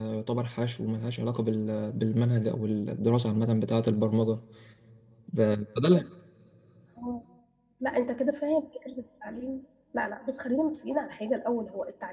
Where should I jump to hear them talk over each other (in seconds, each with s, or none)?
none